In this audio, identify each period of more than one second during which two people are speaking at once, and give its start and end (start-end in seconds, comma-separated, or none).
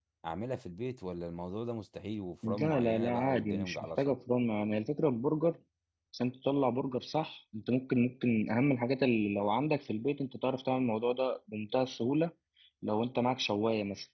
2.5-4.1